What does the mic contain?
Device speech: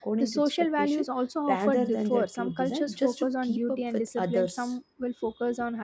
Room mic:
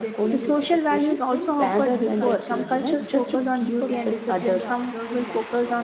both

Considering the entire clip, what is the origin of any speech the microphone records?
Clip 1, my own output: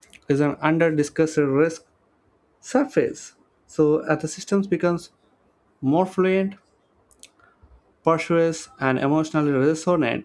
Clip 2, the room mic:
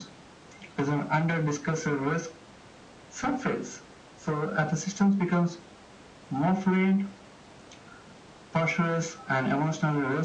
echo only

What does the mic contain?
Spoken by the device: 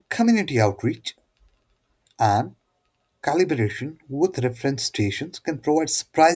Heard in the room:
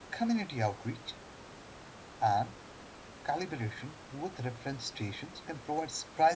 echo only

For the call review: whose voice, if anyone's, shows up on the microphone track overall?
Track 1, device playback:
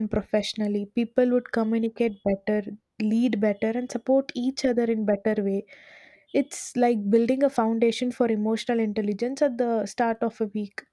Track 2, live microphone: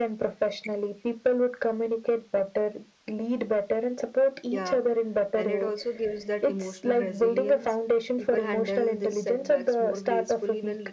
both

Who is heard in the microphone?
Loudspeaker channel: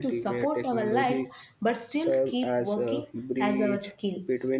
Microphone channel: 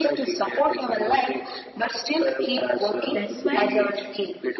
both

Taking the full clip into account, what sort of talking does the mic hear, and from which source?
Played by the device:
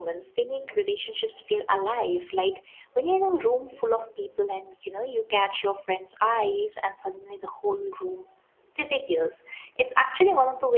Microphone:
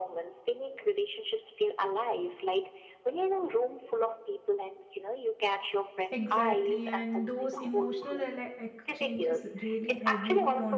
both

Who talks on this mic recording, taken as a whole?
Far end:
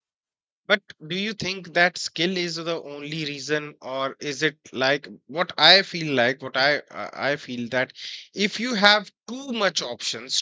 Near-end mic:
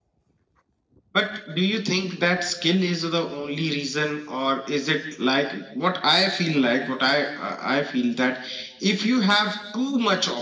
echo only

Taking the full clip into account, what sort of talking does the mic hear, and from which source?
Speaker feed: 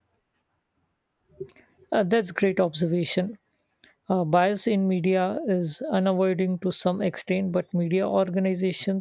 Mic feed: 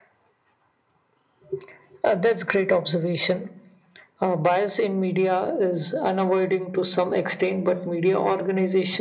echo only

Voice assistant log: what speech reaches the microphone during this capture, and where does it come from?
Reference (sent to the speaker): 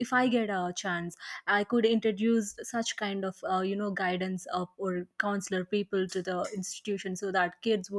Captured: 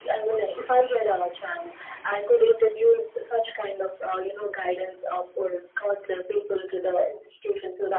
echo only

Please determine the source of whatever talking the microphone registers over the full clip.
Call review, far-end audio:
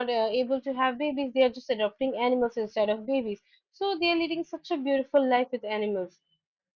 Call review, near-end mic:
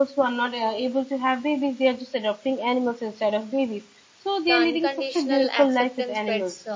both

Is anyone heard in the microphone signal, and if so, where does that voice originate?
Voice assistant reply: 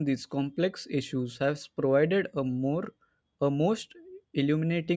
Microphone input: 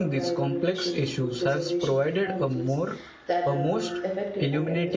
both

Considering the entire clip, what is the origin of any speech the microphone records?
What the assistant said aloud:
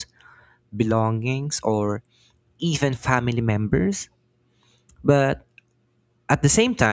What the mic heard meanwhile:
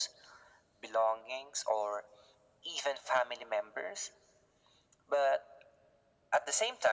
echo only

